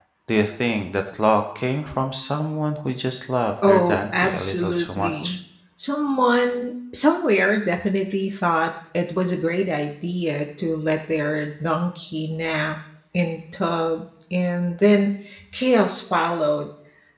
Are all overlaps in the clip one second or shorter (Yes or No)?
No